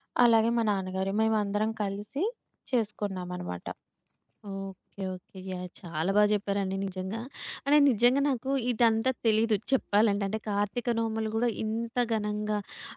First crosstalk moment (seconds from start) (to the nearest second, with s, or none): none